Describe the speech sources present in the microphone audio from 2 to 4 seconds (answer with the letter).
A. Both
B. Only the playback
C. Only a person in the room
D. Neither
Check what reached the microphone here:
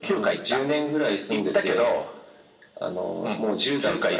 B